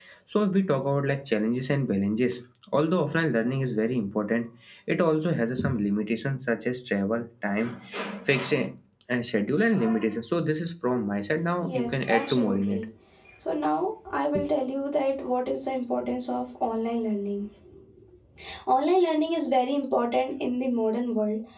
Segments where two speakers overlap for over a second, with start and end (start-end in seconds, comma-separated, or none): 11.6-12.8